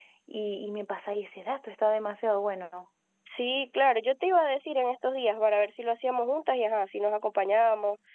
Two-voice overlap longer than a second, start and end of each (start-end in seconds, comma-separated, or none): none